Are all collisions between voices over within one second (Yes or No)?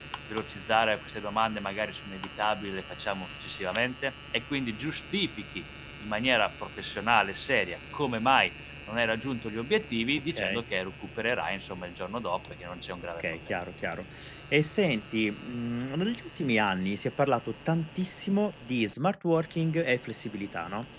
Yes